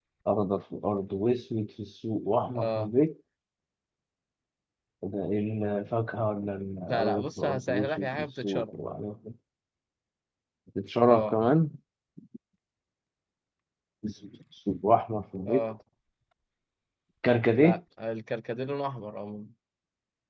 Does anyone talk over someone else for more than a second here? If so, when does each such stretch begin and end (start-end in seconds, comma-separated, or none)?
6.9-8.7